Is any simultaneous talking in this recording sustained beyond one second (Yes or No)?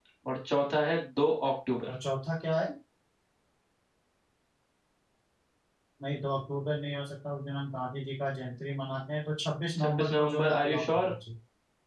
Yes